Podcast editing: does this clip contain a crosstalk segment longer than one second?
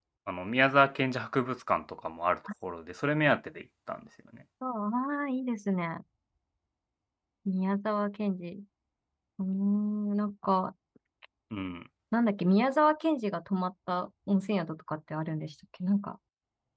No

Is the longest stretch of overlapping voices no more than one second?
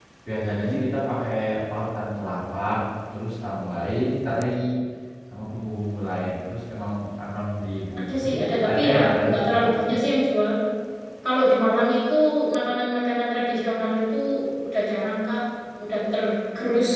No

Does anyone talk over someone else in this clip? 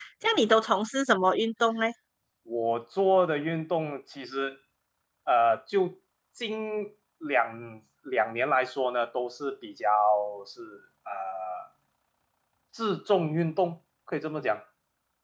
No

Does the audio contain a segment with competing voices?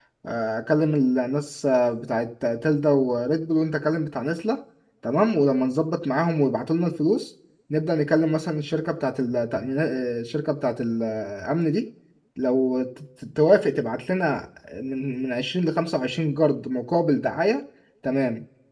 No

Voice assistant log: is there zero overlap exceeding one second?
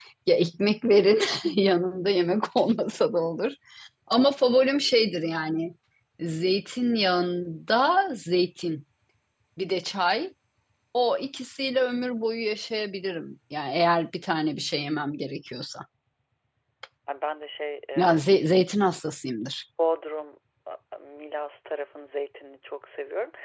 Yes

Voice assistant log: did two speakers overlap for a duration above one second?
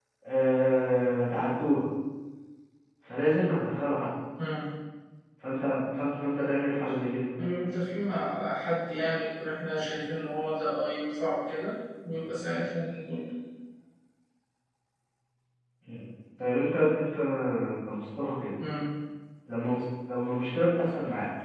No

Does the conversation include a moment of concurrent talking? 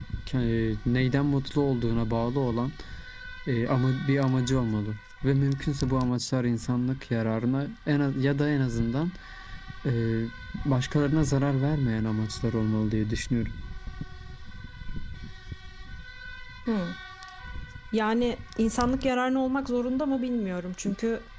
No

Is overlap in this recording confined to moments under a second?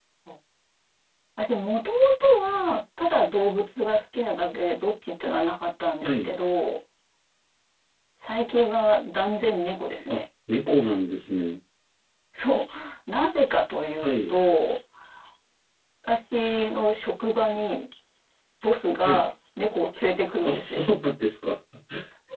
Yes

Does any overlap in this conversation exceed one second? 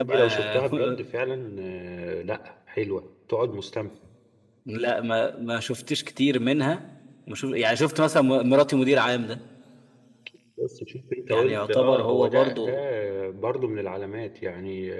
Yes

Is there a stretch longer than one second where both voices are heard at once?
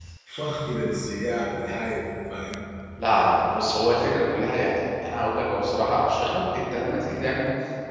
No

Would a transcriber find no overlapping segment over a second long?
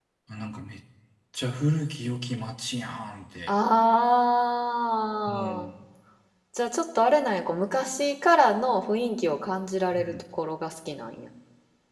Yes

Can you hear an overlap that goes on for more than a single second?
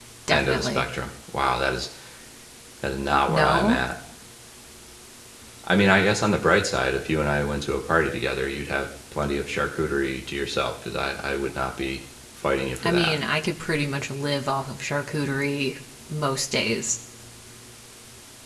No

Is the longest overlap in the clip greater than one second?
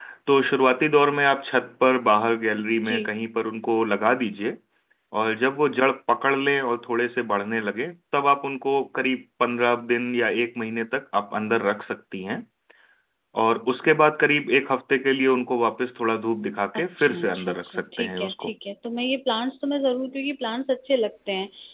Yes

